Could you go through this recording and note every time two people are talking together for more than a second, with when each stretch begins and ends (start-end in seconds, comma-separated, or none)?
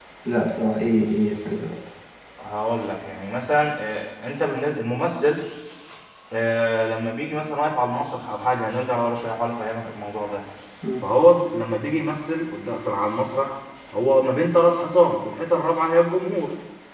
none